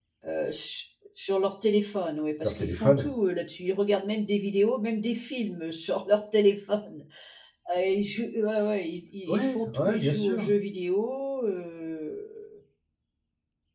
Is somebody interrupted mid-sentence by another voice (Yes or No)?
Yes